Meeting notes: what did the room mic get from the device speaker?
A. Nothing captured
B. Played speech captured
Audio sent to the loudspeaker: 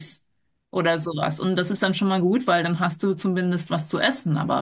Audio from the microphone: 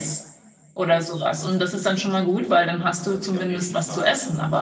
B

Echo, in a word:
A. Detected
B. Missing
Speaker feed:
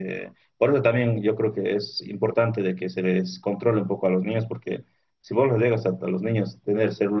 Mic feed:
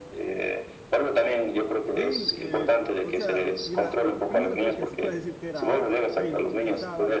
A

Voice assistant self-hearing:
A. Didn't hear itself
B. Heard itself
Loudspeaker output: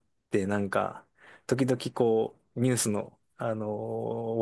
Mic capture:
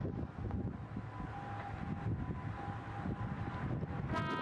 A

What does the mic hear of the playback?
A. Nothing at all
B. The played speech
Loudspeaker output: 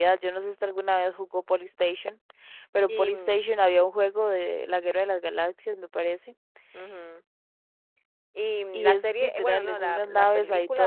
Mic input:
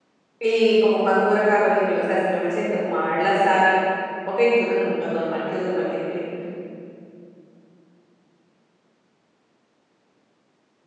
A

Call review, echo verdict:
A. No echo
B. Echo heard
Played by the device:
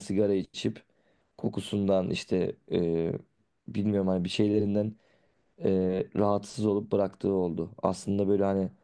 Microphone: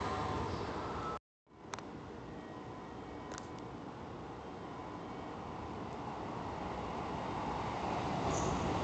A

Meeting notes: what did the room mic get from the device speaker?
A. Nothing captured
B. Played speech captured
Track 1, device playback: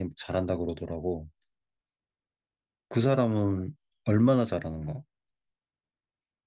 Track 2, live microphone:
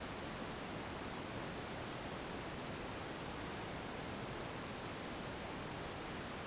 A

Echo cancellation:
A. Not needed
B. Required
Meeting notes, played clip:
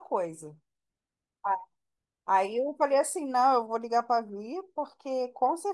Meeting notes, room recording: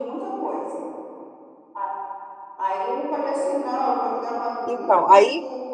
B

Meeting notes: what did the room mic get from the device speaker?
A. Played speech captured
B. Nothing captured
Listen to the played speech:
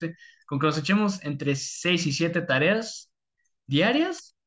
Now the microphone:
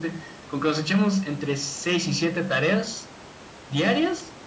A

